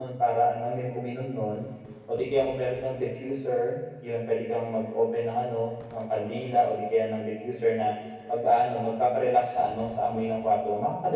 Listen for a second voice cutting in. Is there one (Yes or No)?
No